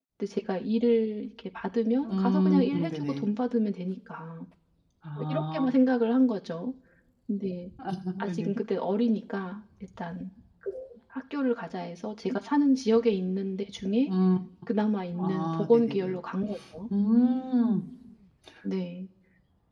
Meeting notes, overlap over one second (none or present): present